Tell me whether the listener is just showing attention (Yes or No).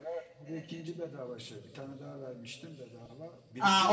No